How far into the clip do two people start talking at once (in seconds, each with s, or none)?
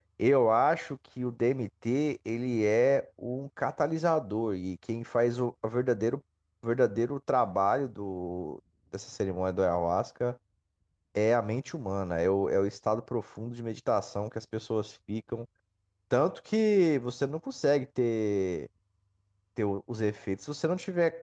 none